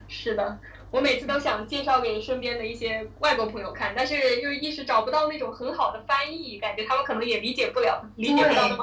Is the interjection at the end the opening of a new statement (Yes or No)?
Yes